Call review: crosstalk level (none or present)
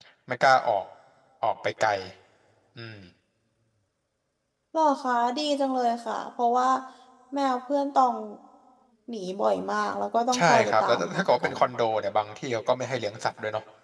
present